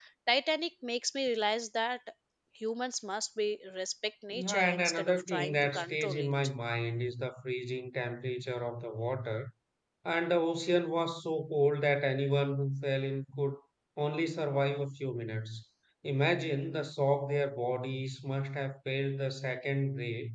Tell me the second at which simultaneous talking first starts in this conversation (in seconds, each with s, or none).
4.3 s